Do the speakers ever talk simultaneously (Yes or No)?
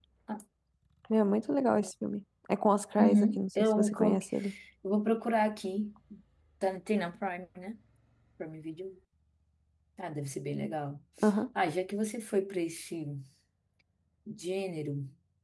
Yes